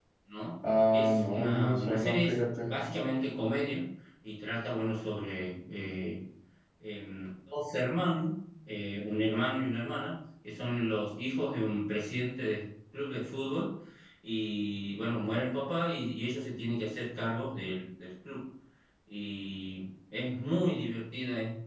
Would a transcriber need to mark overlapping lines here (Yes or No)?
Yes